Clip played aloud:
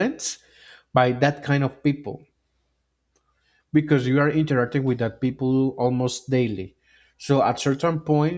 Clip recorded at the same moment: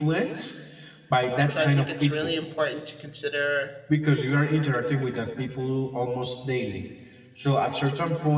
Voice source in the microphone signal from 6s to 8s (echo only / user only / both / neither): echo only